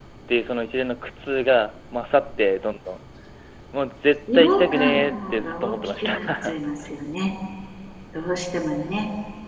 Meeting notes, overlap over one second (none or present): present